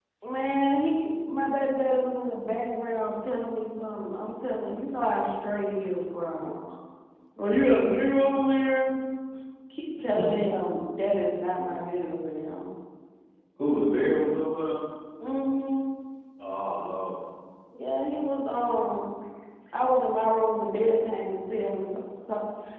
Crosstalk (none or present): none